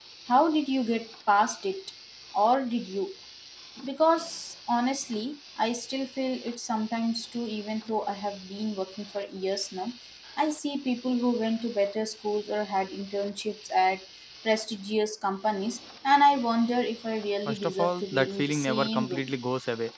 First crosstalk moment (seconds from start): 17.4 s

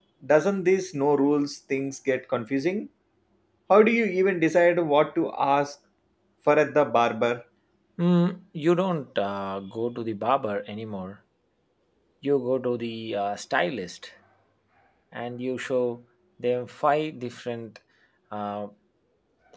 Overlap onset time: none

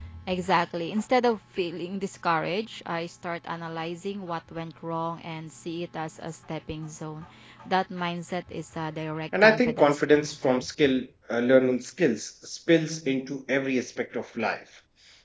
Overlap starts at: 9.3 s

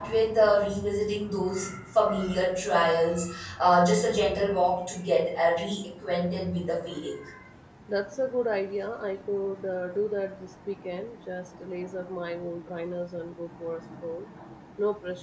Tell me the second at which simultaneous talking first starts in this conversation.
none

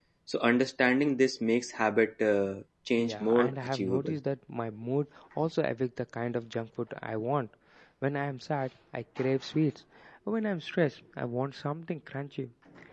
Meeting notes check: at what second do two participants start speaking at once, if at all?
3.0 s

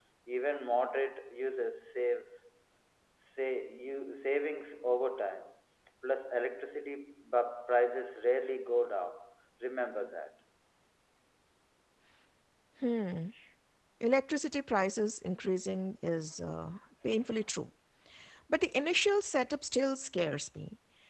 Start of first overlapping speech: none

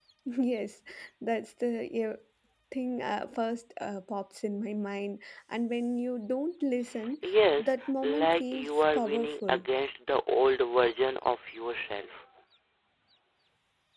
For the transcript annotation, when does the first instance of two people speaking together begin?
7.6 s

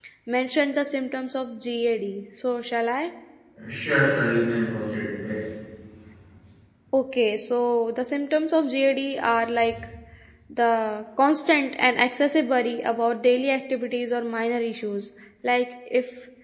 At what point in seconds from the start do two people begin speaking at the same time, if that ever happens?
none

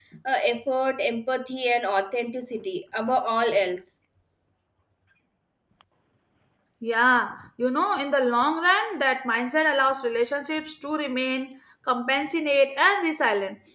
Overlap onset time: none

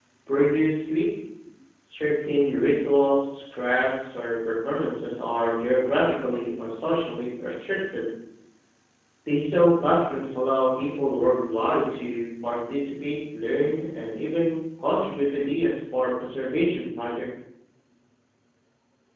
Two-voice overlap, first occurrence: none

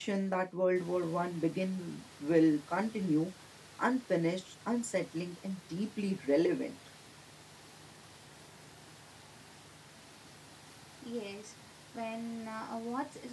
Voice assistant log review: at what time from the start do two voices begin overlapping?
none

